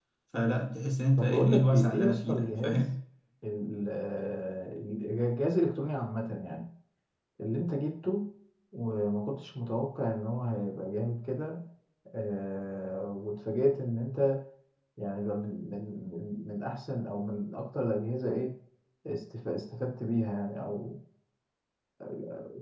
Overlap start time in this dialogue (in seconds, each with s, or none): 1.2 s